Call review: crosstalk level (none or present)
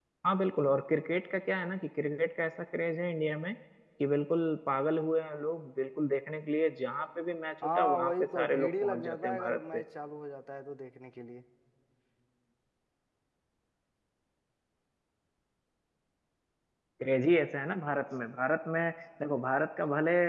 present